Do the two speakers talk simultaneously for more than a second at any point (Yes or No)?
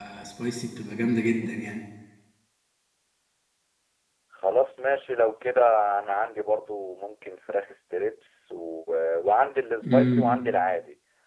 No